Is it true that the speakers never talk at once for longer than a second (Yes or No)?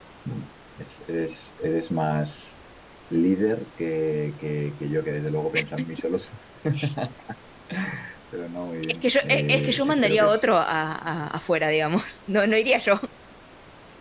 No